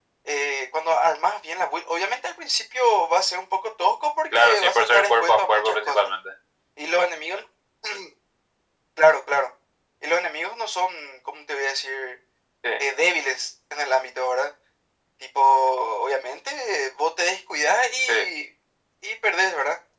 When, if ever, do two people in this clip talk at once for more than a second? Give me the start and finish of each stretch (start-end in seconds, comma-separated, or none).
4.3-6.1